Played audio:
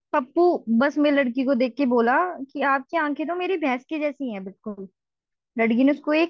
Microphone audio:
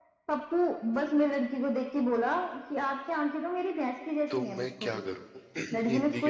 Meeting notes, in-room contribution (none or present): present